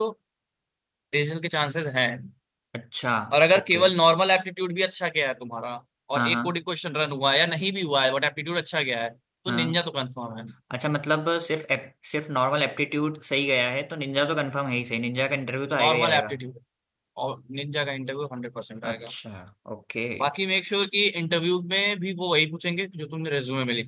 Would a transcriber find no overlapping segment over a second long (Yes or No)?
Yes